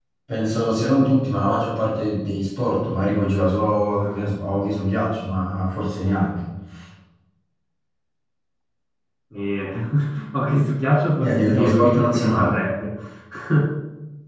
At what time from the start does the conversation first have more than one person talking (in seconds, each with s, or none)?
11.2 s